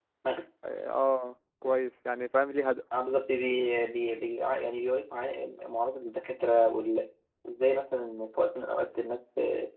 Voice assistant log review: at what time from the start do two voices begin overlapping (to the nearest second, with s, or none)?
none